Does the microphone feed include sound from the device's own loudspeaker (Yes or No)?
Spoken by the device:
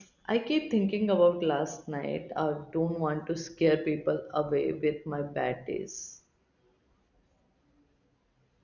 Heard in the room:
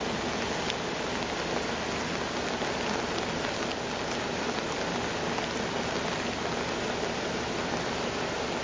No